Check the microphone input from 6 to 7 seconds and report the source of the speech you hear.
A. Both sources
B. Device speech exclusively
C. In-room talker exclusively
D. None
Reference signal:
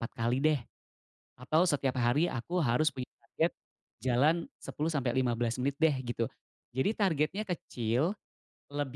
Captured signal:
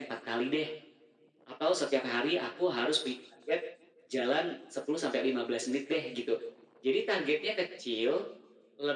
B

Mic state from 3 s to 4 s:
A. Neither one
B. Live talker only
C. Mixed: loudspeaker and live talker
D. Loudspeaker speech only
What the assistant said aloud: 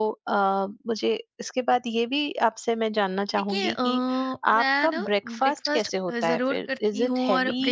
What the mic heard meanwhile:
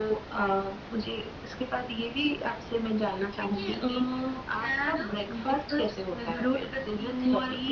D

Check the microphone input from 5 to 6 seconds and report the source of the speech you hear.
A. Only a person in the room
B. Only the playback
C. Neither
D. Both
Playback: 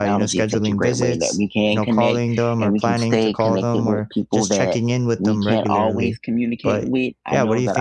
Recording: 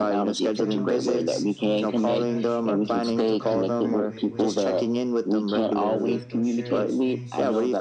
D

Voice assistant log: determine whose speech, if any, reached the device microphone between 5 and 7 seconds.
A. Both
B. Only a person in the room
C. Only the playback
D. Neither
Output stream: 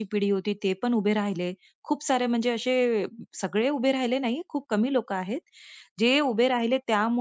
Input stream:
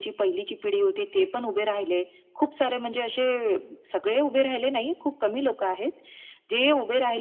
C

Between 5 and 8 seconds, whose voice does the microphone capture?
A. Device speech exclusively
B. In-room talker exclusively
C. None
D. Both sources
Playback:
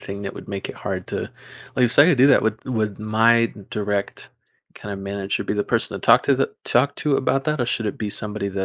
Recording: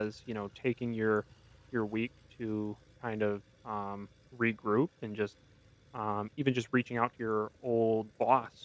B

